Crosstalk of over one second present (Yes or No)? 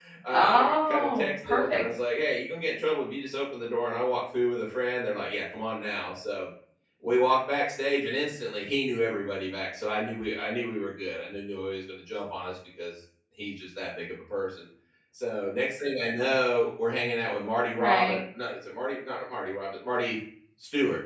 Yes